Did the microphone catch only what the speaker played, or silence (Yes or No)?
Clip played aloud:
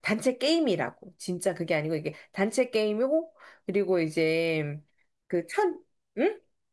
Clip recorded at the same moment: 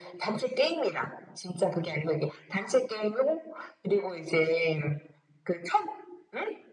Yes